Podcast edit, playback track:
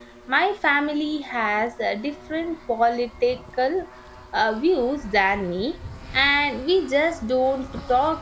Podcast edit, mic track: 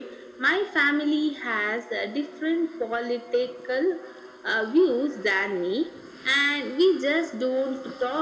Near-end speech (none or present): none